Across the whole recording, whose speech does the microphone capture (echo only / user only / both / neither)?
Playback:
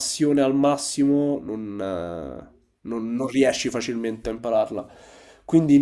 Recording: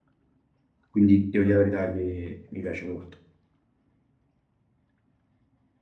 user only